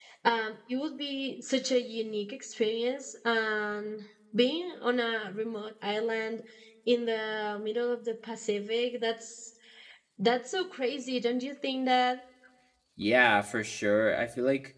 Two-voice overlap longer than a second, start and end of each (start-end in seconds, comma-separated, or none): none